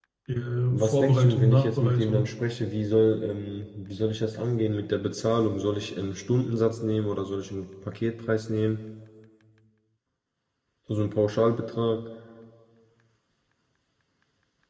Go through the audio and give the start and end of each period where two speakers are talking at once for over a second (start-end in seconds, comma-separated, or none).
0.7-2.3